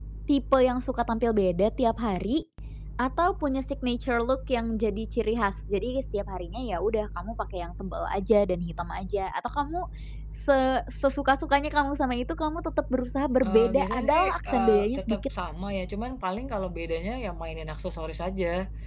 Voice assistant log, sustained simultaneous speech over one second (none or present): present